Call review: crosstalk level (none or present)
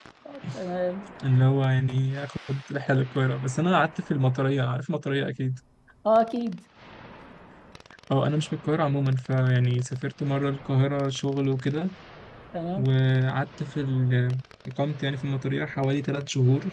none